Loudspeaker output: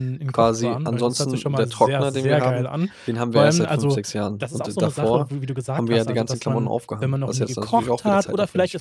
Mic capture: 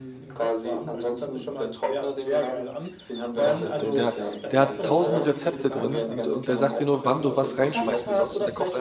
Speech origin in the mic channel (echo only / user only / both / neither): both